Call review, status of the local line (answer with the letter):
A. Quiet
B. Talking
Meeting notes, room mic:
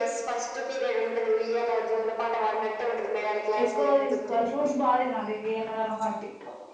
B